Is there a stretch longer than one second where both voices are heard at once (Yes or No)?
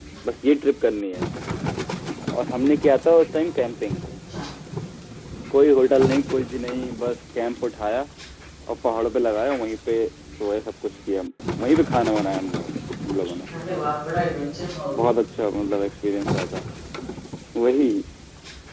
No